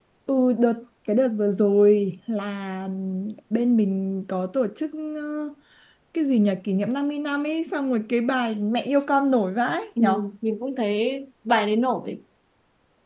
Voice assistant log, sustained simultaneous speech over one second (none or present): none